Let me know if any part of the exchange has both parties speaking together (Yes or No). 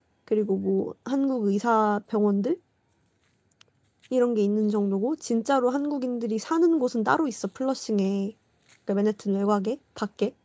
No